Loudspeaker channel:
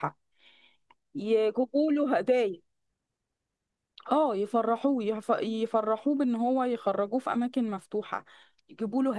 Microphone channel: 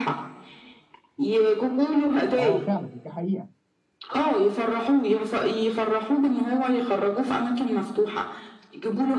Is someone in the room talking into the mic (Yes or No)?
Yes